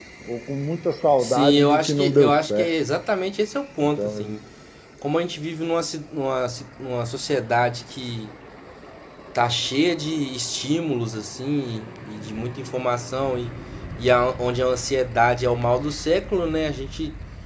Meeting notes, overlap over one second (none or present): present